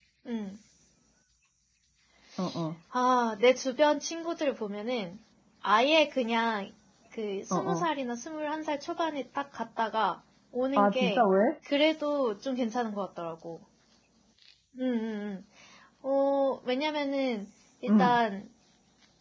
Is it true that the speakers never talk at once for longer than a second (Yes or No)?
Yes